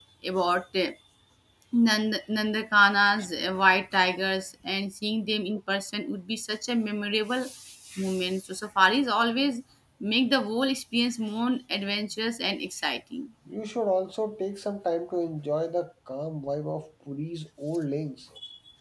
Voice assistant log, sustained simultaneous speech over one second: none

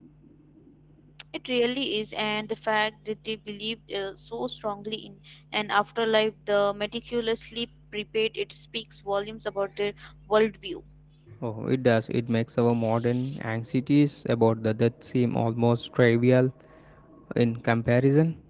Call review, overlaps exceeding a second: none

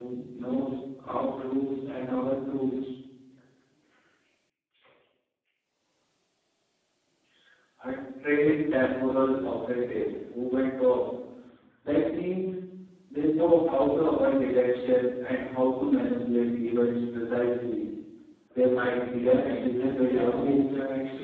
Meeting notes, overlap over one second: present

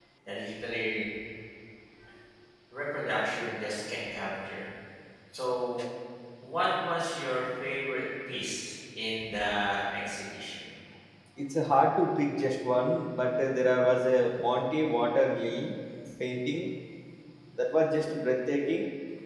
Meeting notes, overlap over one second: none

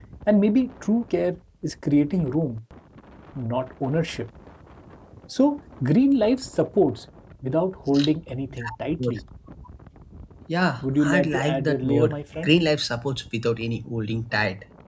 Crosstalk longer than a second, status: present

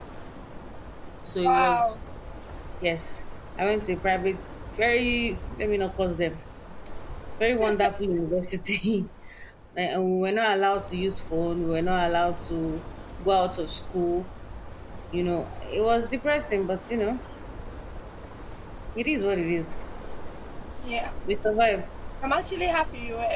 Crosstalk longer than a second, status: none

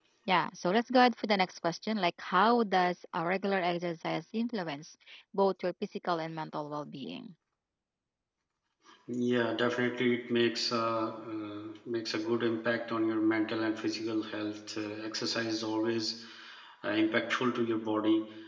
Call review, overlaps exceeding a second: none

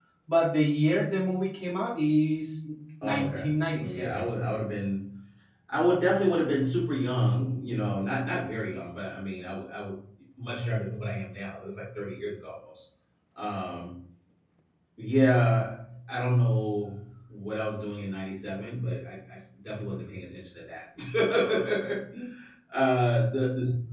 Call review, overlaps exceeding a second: present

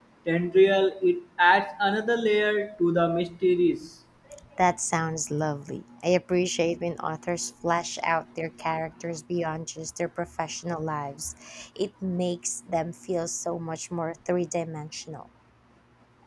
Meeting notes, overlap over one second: none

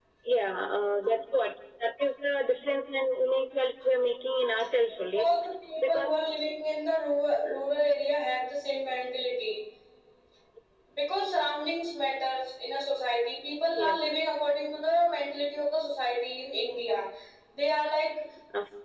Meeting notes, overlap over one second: none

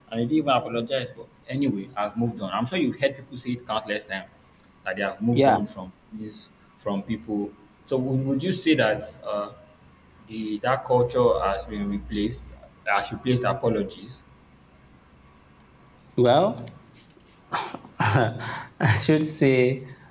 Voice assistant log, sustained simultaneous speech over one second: none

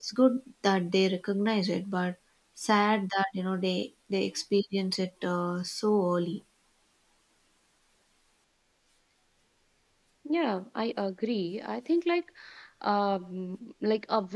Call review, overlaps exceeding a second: none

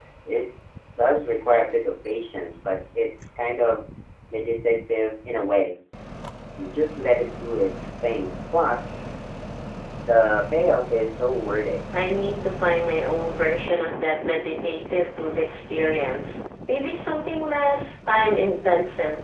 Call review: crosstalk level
none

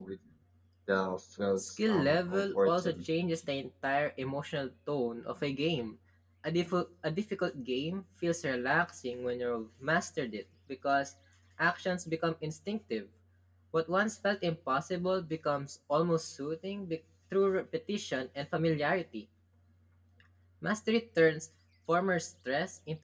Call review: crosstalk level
present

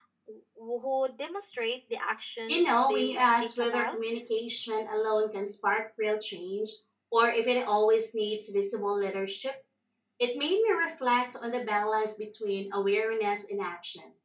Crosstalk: present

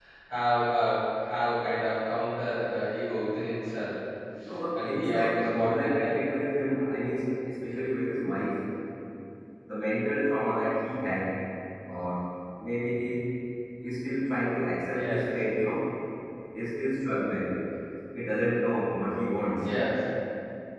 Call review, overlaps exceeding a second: present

